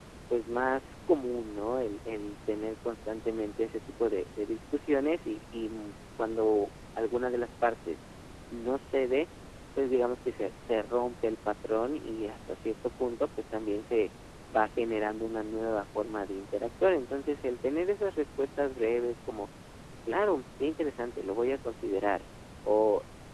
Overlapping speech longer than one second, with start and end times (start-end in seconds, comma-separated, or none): none